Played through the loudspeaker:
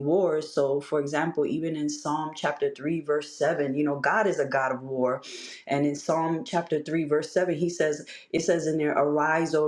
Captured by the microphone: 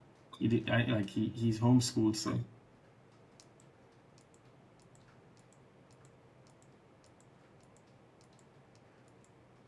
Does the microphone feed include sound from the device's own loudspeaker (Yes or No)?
No